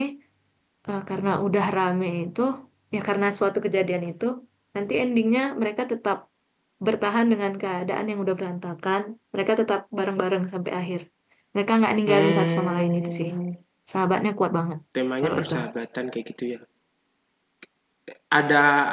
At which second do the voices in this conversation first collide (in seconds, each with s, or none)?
12.1 s